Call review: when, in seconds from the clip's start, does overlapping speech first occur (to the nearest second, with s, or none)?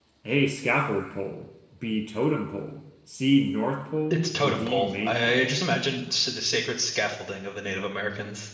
4 s